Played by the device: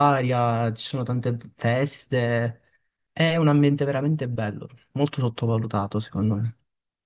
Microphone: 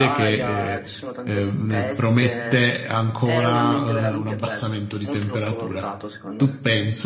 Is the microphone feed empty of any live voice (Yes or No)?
No